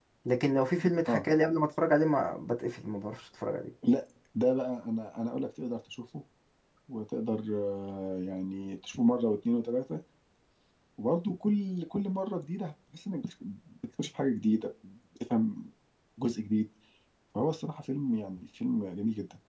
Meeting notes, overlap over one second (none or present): none